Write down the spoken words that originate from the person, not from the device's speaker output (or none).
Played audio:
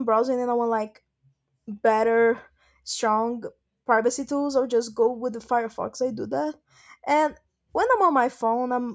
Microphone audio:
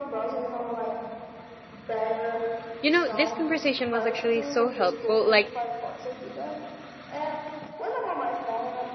You know, this conversation was actually so helpful. Like